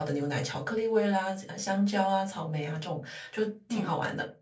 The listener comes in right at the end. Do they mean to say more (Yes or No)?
No